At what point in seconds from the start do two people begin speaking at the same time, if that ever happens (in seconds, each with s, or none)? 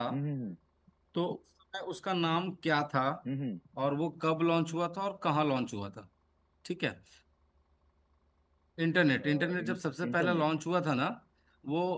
9.2 s